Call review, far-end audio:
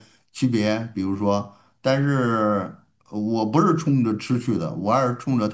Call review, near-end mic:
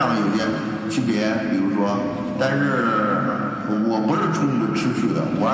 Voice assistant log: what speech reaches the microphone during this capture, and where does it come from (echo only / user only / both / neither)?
both